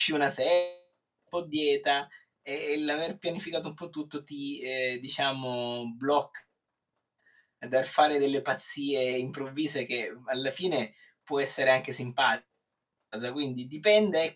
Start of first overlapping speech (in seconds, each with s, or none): none